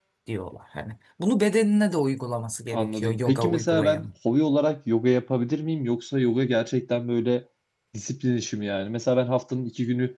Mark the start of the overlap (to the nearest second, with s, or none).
3 s